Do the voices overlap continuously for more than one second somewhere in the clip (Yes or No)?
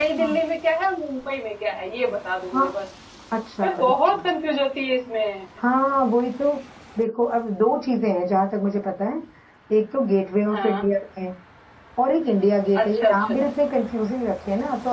No